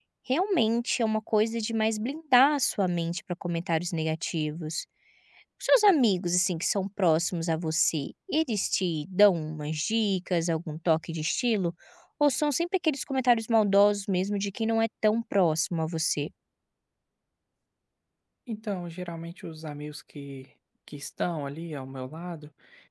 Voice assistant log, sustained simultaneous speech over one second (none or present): none